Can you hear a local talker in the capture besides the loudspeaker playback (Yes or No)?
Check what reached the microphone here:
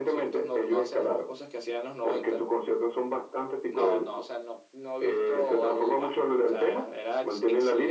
No